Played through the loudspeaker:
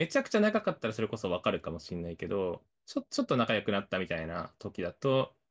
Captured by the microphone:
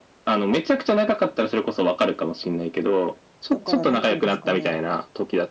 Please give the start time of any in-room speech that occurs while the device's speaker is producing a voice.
3.5 s

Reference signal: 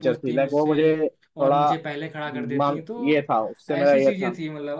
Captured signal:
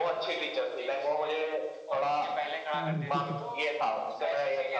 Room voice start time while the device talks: 2.7 s

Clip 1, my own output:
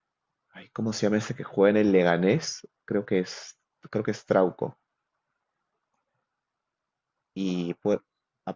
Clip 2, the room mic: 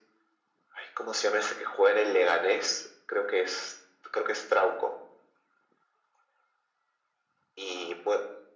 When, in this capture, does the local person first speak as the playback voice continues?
none

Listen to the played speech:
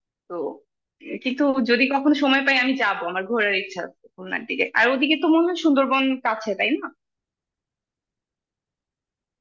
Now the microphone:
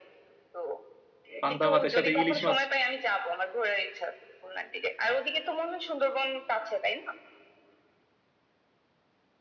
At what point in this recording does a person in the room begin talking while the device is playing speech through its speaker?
1.4 s

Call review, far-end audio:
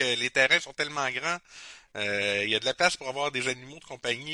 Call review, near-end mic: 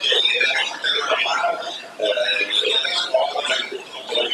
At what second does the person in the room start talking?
none

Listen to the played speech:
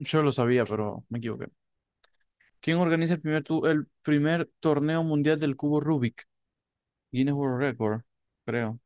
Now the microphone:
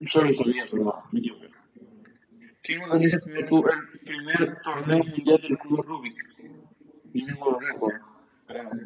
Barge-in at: 4.7 s

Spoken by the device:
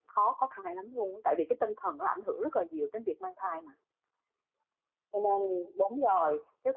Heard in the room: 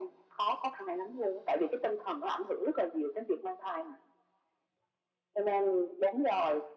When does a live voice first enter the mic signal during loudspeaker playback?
none

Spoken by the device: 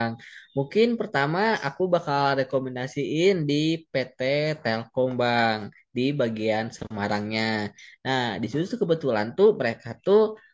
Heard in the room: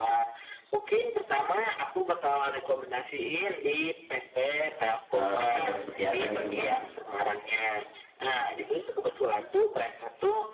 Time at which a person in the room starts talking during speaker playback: 5.2 s

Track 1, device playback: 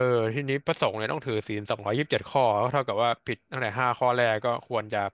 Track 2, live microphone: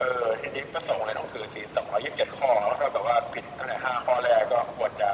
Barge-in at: none

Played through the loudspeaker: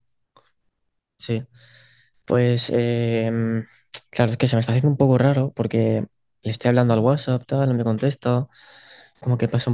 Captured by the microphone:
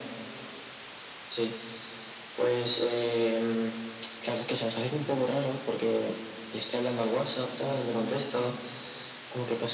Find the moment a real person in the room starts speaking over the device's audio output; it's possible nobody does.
none

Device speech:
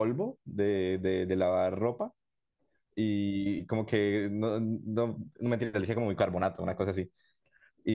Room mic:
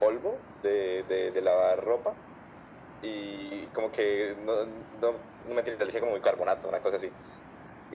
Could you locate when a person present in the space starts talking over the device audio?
none

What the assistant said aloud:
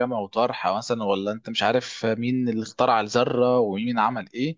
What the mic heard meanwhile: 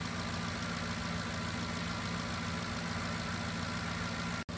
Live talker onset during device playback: none

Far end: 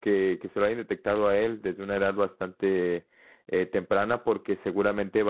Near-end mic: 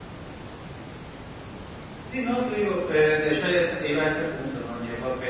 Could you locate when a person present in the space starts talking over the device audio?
2.1 s

